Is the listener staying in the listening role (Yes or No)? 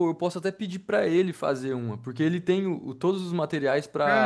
No